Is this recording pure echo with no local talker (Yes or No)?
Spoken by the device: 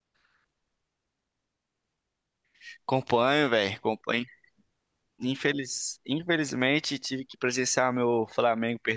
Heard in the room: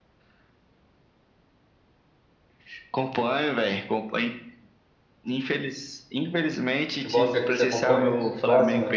No